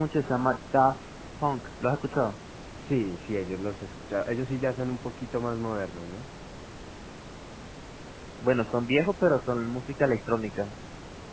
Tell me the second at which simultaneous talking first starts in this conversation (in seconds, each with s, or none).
none